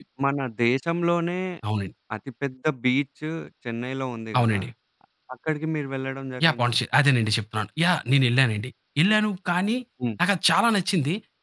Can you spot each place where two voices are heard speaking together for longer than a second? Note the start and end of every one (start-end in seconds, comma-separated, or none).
none